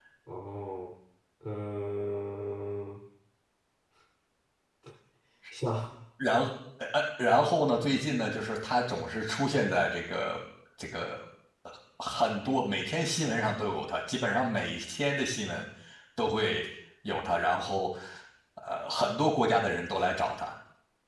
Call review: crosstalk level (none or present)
none